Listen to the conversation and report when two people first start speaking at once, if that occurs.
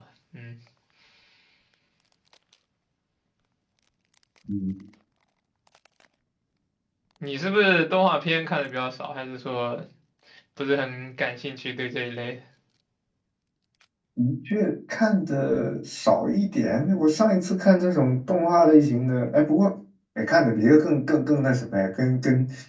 none

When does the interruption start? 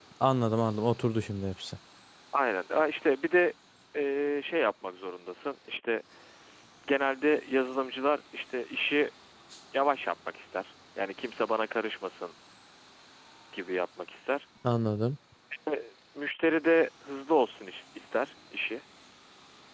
none

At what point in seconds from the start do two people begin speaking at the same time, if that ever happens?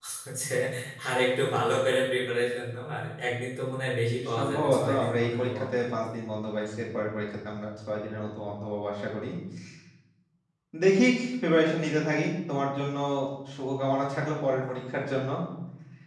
4.1 s

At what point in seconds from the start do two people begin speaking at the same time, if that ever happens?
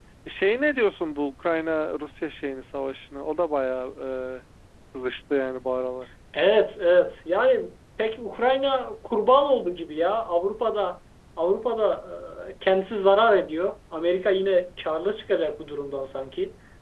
none

